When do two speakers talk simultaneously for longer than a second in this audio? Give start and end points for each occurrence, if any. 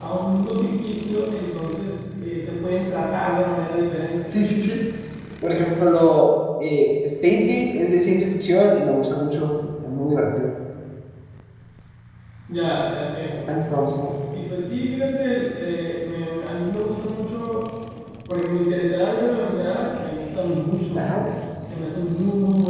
none

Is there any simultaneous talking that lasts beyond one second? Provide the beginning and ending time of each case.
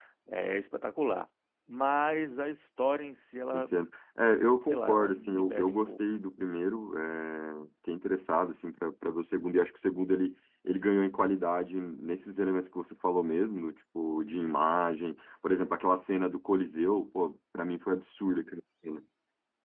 4.6-6.0

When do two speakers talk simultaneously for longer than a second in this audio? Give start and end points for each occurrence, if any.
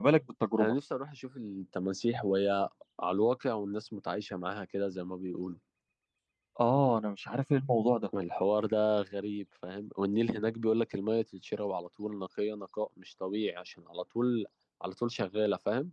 none

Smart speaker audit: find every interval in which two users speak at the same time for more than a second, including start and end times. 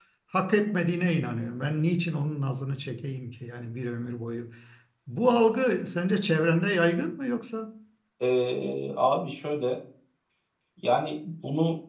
none

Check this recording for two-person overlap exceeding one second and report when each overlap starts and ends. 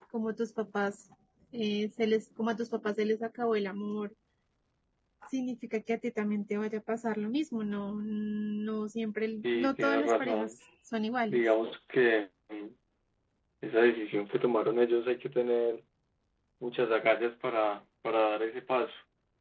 9.3-10.5

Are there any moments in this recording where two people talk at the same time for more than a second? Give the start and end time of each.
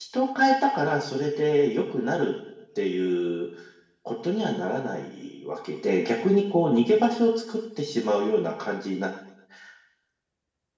none

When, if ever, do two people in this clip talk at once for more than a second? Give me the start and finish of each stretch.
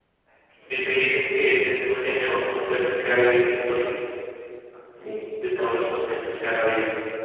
none

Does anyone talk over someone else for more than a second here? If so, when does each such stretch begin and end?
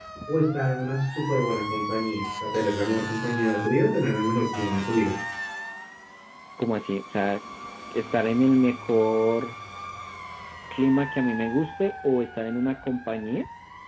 none

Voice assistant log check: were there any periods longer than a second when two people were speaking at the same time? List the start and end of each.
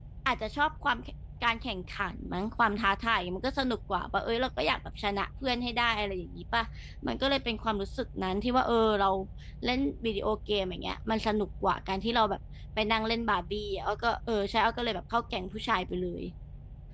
none

